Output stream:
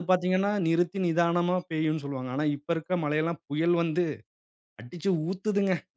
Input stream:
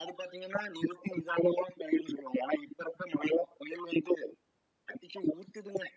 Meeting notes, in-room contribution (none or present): none